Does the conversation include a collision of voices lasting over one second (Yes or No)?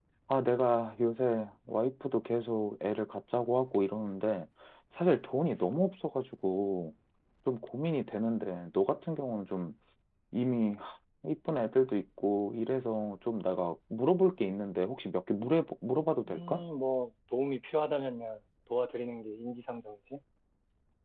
No